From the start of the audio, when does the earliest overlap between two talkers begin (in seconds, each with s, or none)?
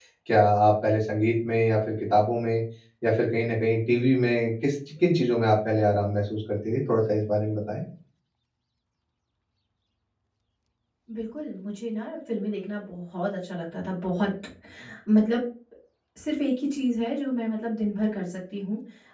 none